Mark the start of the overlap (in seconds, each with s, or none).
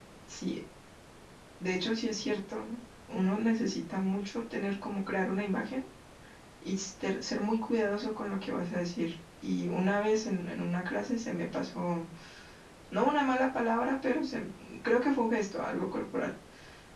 none